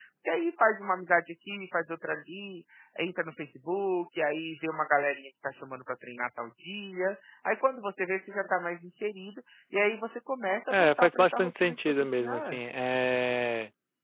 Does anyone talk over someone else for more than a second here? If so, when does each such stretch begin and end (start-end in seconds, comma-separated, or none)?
10.7-12.6